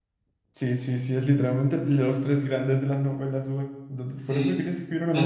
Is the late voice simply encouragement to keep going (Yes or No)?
No